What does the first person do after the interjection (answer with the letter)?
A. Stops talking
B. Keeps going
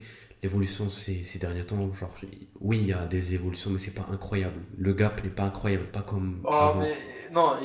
A